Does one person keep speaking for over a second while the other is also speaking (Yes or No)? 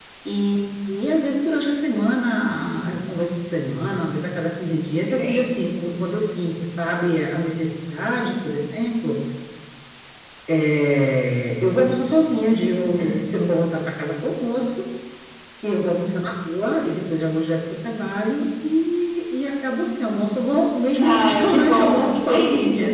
Yes